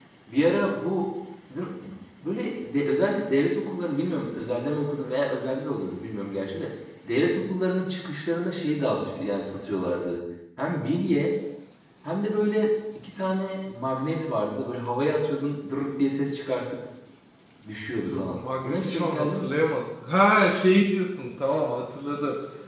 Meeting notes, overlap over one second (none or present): present